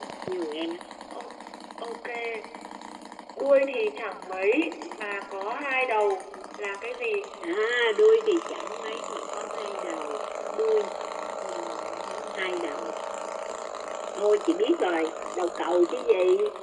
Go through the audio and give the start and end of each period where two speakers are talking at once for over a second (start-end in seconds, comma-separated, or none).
none